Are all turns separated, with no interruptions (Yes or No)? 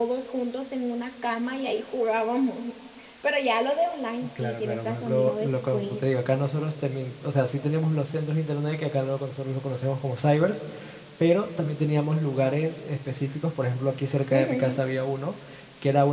No